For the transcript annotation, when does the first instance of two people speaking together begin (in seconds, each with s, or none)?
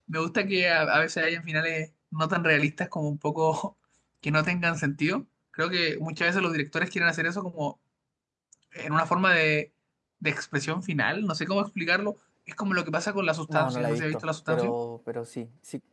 13.5 s